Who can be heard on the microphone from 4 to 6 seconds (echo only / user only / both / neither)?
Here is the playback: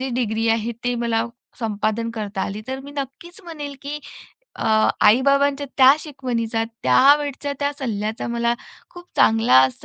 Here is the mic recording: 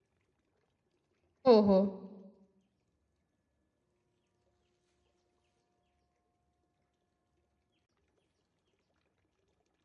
neither